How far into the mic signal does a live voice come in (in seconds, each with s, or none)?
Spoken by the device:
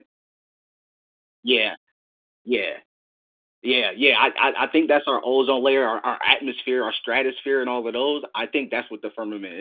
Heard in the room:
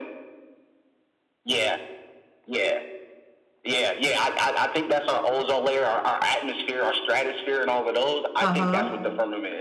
8.4 s